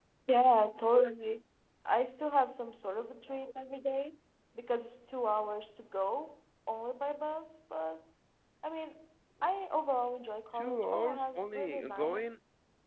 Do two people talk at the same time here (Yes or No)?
Yes